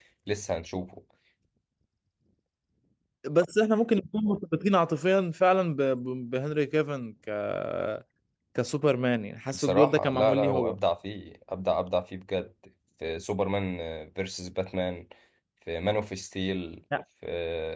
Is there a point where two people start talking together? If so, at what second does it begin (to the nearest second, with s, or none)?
10 s